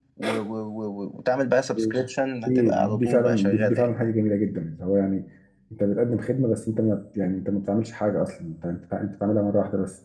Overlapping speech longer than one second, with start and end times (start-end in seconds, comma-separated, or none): 2.4-4.1